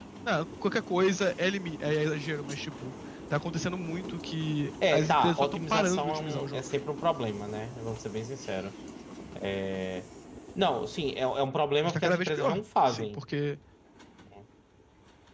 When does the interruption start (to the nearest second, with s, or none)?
5 s